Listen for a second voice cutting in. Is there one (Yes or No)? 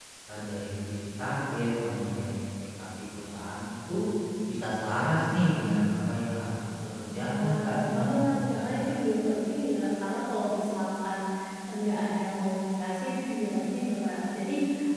Yes